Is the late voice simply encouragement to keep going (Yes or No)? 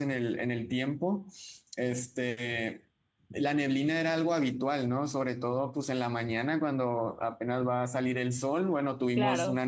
Yes